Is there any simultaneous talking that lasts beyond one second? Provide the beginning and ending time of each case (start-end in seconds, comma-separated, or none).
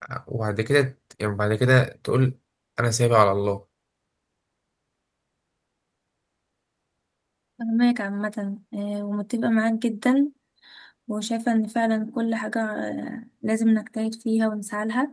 none